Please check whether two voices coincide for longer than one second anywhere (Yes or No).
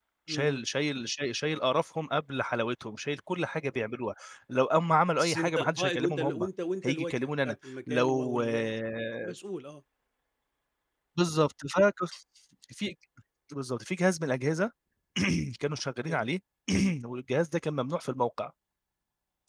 Yes